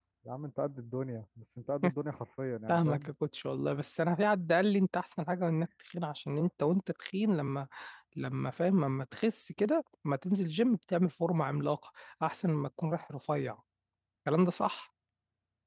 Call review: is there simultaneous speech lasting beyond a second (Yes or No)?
No